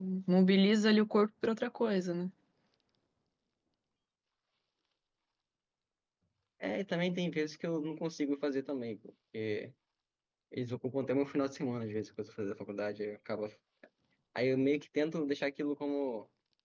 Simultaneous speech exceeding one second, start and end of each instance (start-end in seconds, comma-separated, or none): none